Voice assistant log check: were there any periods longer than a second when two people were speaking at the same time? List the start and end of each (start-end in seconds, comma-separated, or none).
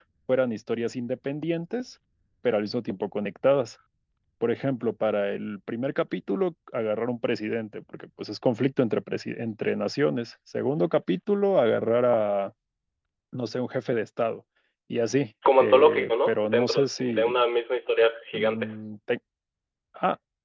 15.5-17.4